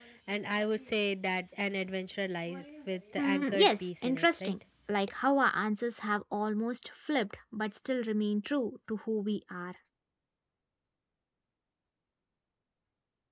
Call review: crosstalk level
present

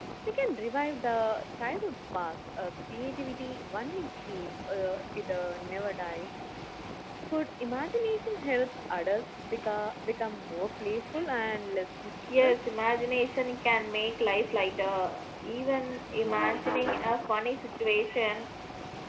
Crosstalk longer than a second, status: none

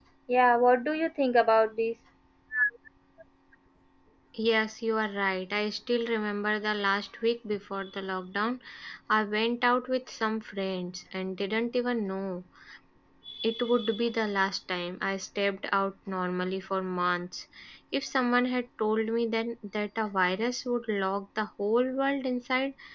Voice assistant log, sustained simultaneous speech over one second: none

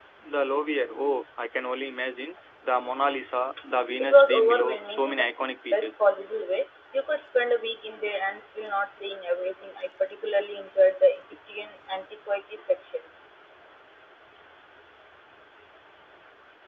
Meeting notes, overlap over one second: present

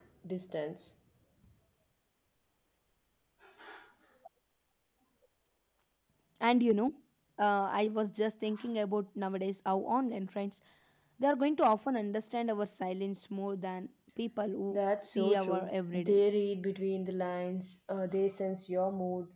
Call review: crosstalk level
present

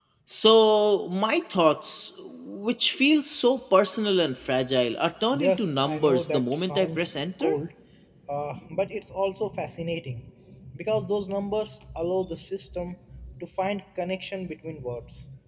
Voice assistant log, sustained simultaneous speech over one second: present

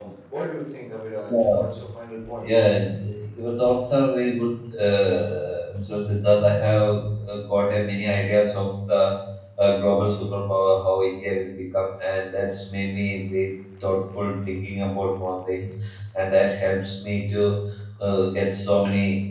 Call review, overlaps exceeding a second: none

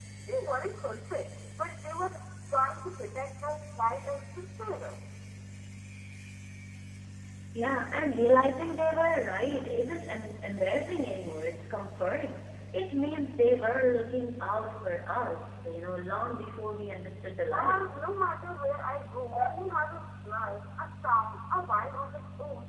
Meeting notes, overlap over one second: none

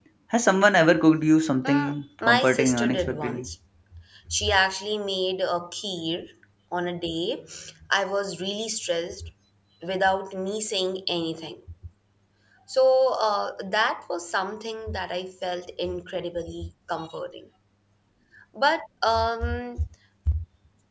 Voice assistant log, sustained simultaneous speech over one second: present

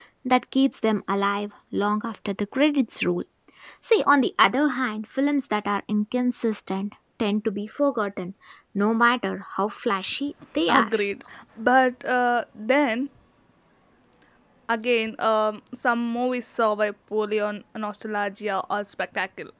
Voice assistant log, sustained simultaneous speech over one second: none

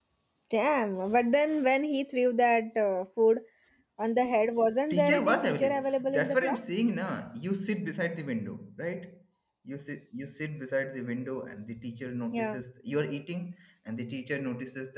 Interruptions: present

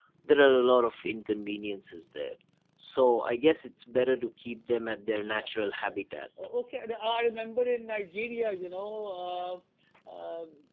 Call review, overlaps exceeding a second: none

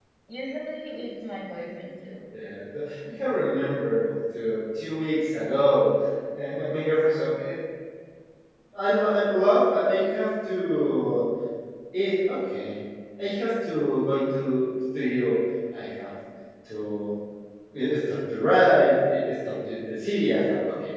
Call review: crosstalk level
none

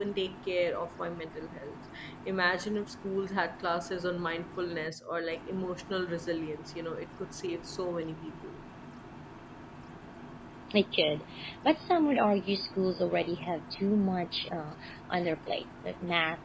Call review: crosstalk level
none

